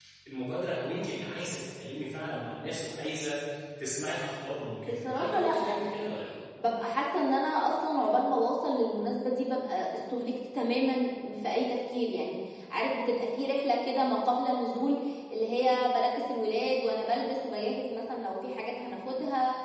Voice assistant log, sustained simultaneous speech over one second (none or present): present